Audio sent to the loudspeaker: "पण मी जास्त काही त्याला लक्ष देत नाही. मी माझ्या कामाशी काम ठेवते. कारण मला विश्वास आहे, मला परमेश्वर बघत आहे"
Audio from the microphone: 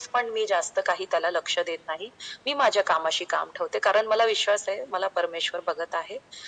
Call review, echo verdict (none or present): present